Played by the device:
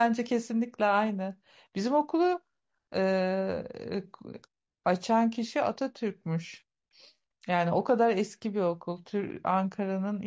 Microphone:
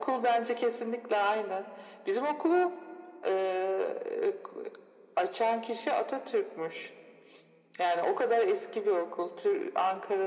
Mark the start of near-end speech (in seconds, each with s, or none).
none